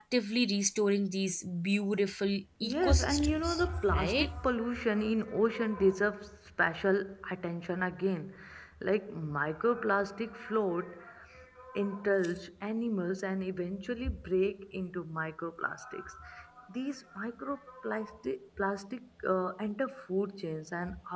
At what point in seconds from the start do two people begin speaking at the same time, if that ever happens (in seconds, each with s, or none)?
2.6 s